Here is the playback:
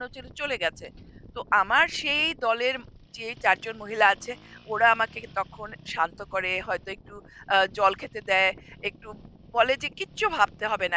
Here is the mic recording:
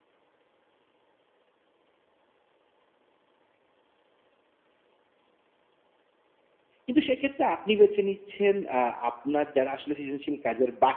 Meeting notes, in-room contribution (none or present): present